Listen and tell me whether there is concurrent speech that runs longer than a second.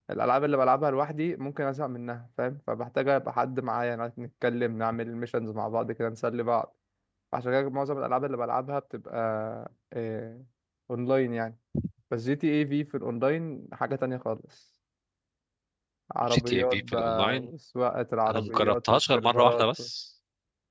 Yes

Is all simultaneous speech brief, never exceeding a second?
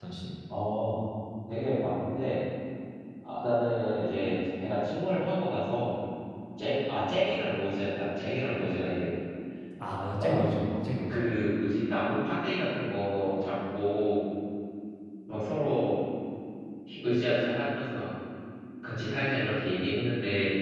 Yes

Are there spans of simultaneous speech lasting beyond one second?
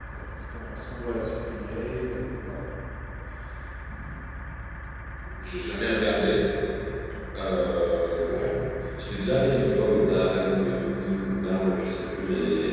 No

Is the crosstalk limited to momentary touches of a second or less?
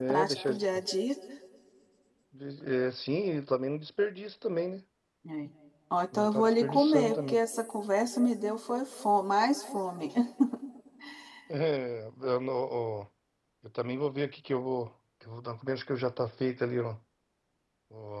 No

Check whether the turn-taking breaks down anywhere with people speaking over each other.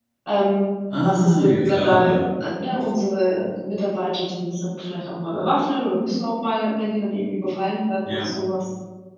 Yes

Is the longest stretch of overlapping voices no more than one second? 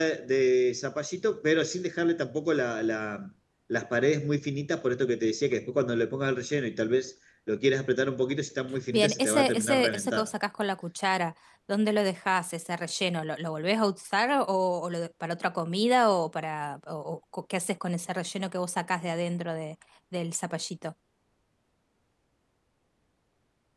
No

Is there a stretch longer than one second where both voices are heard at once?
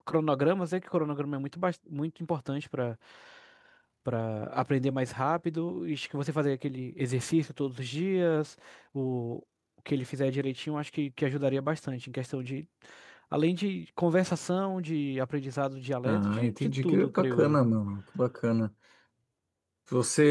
Yes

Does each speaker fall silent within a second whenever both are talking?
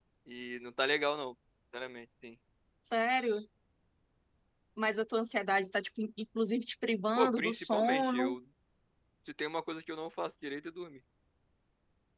No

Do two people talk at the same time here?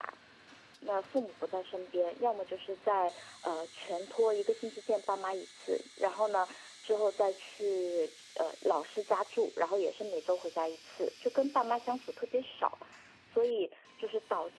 No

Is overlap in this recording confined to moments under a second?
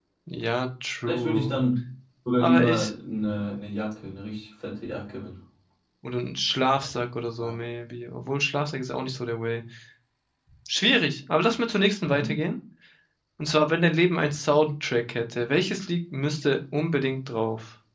Yes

